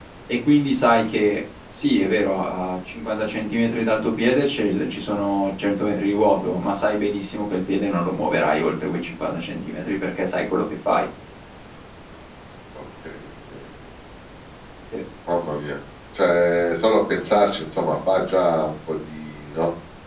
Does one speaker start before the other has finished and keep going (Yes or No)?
No